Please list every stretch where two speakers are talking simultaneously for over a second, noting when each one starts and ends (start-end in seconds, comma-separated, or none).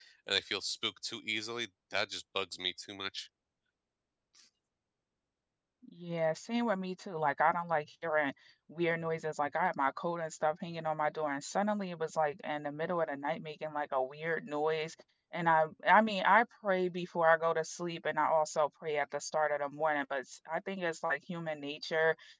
none